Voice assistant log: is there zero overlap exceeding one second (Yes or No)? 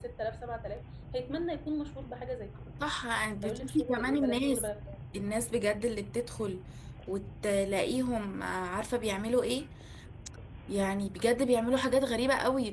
No